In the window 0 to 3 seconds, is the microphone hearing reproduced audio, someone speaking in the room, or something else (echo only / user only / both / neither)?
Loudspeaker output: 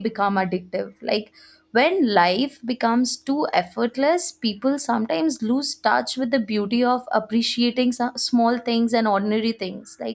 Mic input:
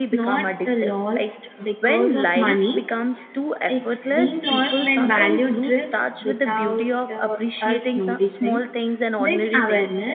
both